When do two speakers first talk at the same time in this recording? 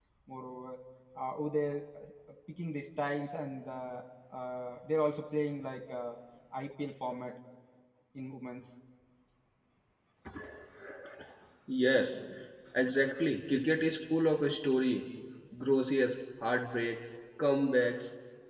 none

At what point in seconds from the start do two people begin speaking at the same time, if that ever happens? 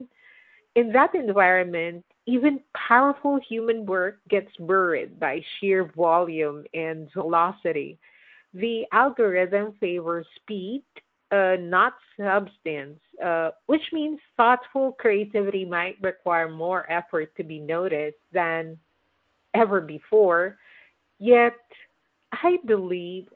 none

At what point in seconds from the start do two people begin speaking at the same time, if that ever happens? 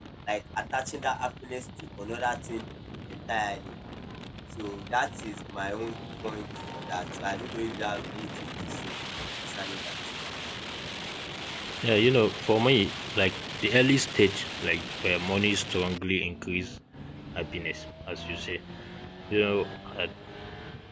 none

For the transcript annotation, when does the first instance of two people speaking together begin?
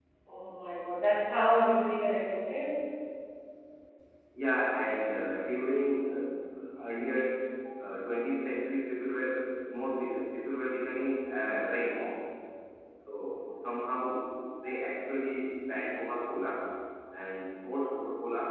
none

